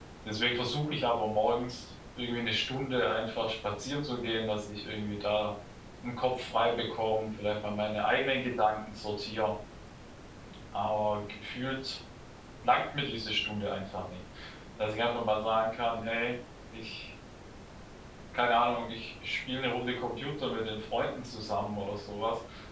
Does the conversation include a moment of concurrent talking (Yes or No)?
No